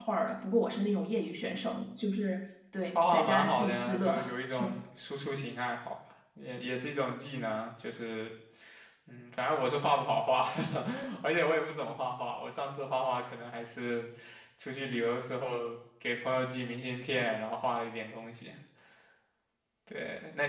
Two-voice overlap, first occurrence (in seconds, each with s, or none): 3.0 s